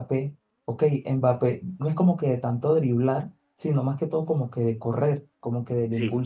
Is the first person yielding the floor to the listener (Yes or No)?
No